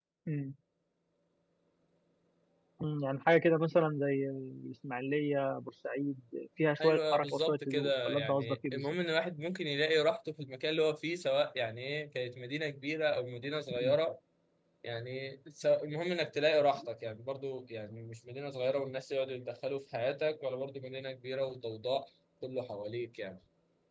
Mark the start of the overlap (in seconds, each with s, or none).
6.8 s